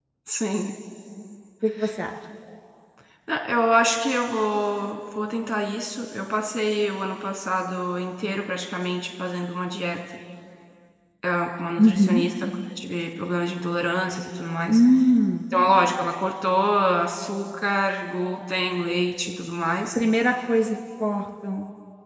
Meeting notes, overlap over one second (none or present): none